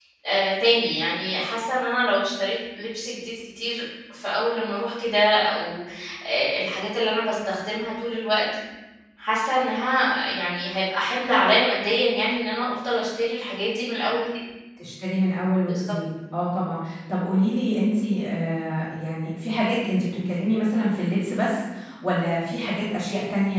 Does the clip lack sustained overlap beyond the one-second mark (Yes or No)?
Yes